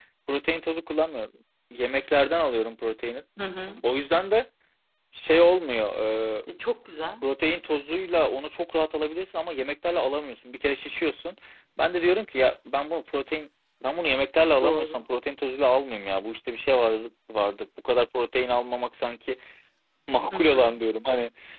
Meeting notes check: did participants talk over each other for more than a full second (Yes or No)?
No